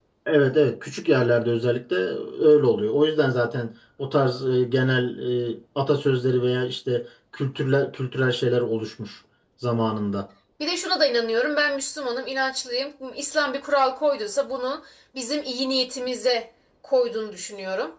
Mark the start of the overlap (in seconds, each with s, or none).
none